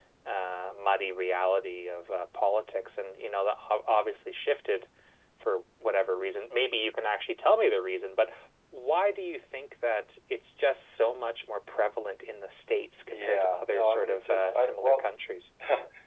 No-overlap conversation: No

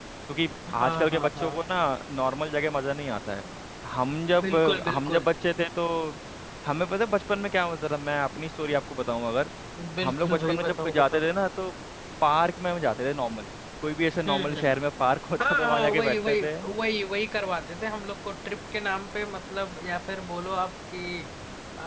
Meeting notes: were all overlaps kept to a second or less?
No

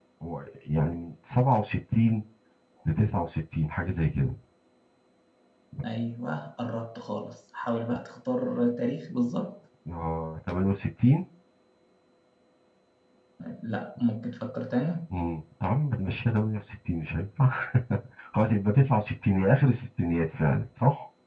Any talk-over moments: No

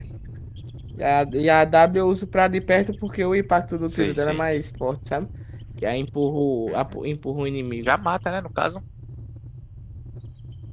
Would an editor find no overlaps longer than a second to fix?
Yes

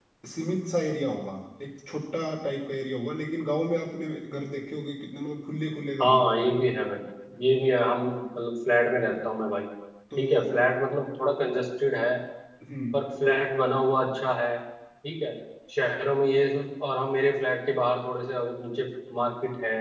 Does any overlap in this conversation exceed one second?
No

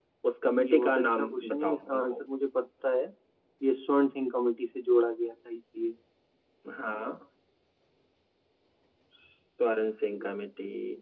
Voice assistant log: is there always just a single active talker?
No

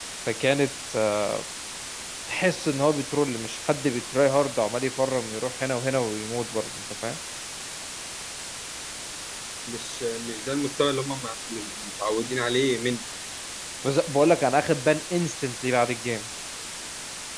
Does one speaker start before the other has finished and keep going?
No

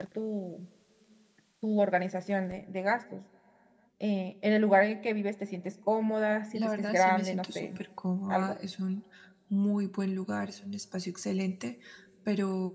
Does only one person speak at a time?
No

